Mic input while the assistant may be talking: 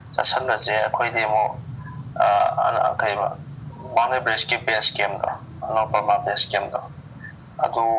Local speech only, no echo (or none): none